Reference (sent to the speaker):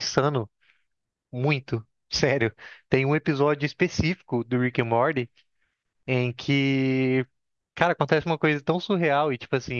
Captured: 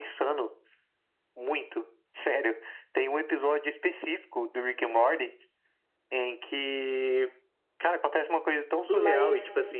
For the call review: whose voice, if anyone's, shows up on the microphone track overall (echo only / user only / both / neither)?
both